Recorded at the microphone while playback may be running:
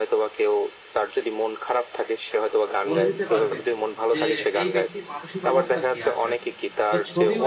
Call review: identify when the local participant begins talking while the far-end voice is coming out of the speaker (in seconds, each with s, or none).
2.9 s